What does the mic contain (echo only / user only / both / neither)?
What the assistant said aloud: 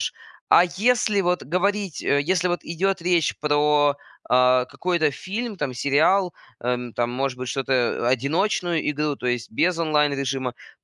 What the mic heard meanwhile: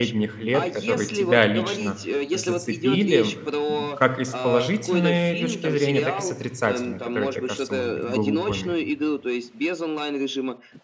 both